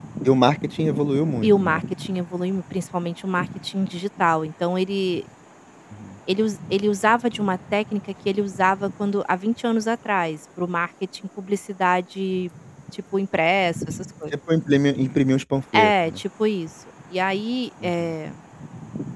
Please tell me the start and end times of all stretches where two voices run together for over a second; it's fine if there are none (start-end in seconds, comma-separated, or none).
none